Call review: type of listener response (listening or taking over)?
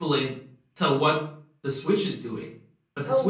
listening